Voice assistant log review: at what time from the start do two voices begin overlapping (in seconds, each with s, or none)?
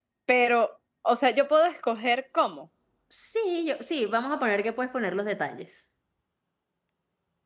none